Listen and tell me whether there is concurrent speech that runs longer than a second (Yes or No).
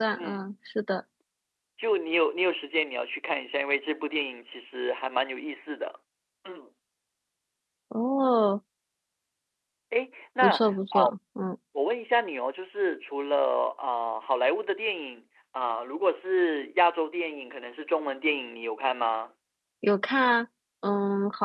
No